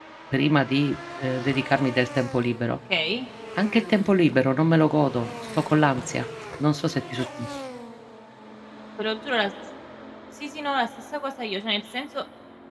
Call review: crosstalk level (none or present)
none